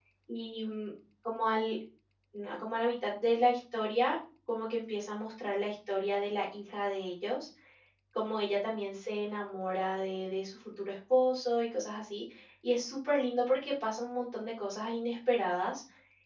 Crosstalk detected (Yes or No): No